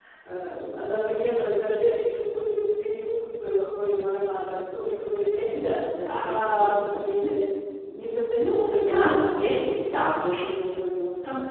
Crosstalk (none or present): present